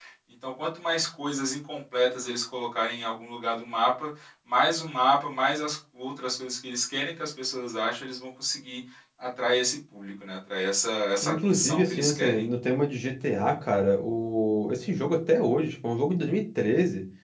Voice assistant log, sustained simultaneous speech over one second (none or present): present